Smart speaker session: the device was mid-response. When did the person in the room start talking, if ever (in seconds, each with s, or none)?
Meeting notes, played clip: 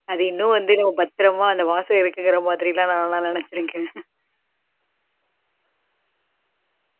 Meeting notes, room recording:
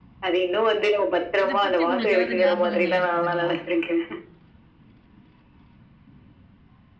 1.5 s